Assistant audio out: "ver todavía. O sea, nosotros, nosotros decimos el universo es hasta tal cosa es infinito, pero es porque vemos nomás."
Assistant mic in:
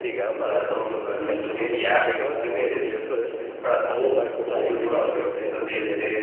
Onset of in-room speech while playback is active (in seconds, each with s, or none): 0.4 s